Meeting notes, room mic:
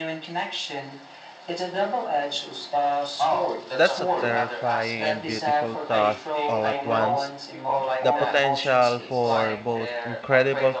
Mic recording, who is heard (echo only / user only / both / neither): both